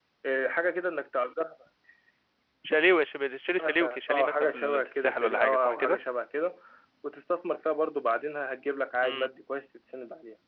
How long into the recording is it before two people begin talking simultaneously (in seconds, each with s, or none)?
3.6 s